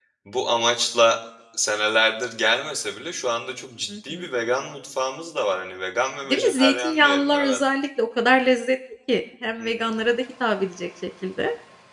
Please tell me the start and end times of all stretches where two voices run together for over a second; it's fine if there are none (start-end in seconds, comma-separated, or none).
6.3-7.6